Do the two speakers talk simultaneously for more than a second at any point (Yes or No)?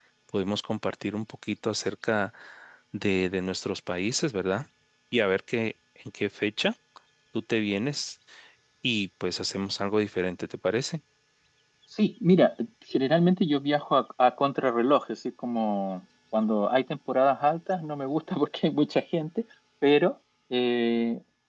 No